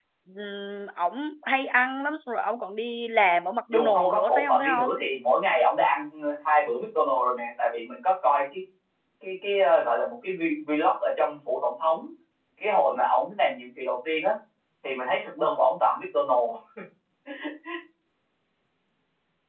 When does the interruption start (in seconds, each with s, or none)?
3.7 s